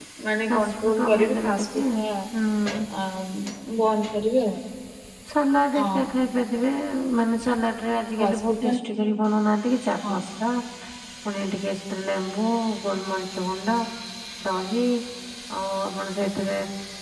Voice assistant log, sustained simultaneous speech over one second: present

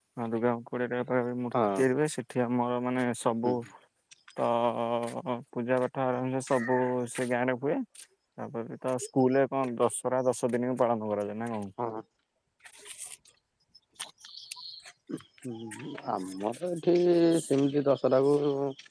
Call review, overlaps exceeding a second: none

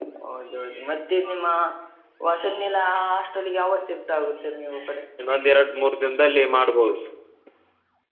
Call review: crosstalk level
none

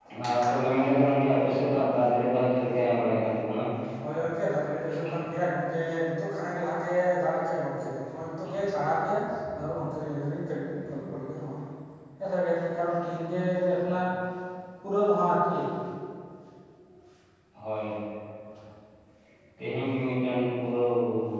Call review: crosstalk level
none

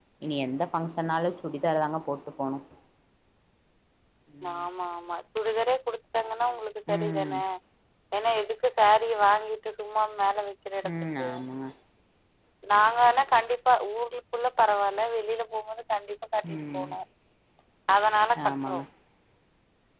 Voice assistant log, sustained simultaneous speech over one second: none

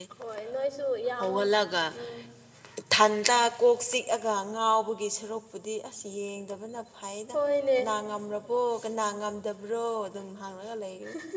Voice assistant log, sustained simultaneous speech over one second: none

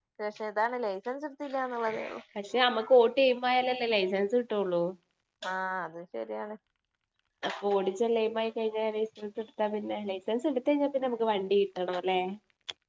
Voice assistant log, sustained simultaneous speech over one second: none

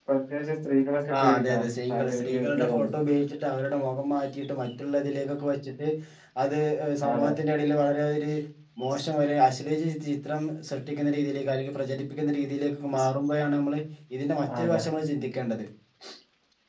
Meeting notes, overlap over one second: present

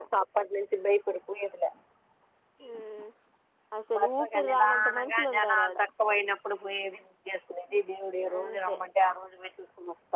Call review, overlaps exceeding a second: present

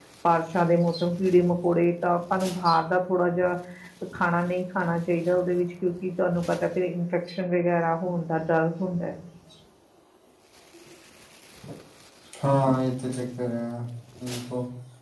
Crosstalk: none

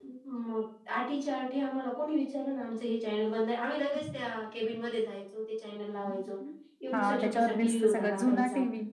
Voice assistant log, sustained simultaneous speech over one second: present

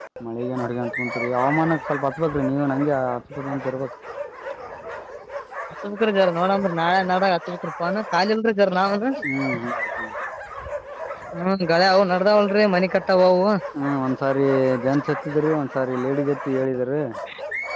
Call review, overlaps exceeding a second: none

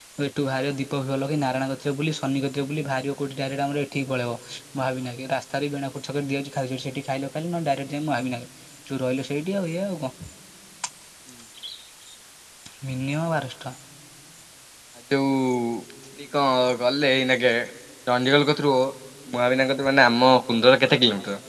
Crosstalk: none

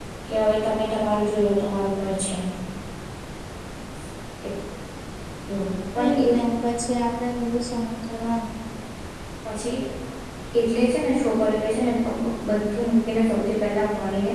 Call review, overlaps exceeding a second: none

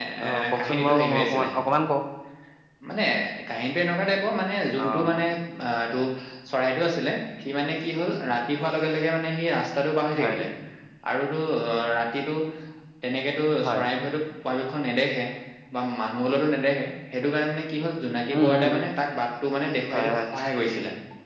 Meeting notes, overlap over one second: present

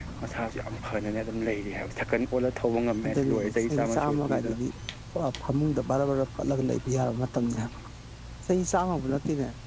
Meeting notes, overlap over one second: present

